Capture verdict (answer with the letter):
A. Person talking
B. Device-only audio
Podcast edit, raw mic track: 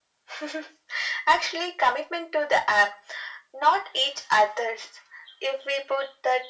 B